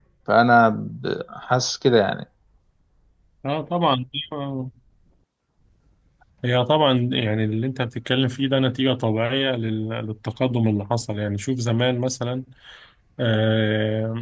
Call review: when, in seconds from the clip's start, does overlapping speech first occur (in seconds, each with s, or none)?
none